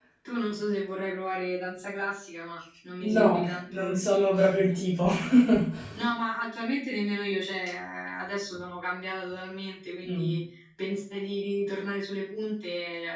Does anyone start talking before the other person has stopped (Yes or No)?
Yes